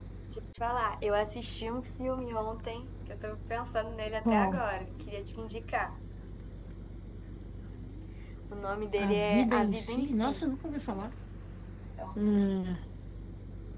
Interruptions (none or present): present